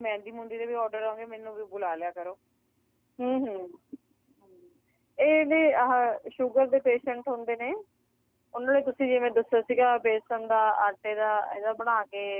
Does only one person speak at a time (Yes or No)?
Yes